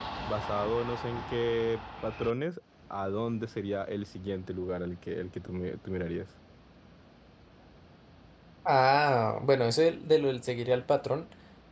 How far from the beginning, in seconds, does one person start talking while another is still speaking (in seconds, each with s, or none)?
none